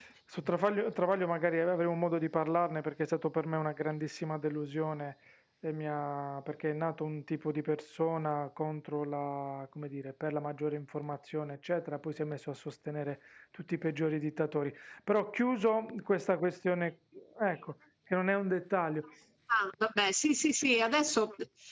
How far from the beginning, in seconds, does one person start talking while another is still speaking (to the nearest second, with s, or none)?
none